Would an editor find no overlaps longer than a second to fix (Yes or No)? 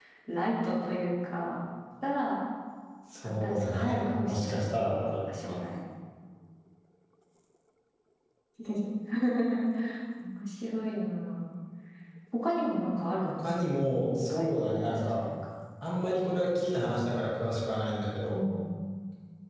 No